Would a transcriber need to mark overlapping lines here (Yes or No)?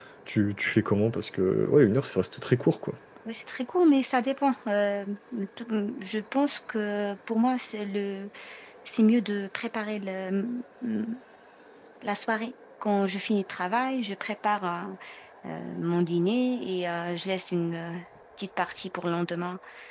No